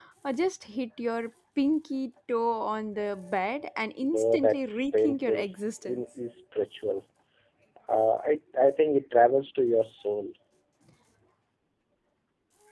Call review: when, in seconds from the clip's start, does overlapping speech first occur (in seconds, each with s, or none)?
4.0 s